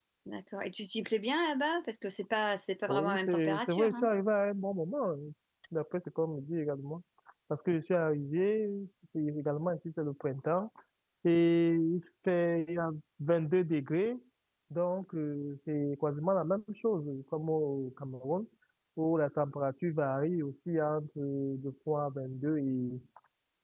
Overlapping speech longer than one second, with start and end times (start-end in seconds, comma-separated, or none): 2.9-4.1